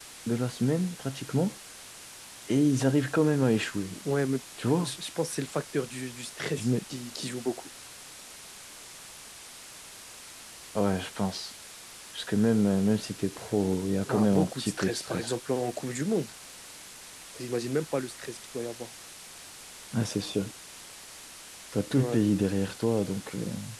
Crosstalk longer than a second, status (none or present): present